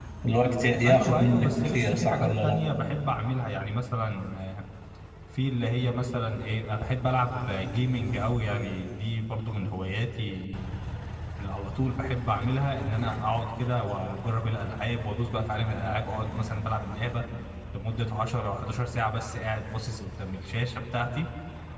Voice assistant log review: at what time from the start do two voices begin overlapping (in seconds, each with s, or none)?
0.8 s